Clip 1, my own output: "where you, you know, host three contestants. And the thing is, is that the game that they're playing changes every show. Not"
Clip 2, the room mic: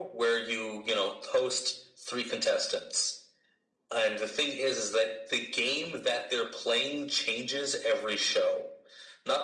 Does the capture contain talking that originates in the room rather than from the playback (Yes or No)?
No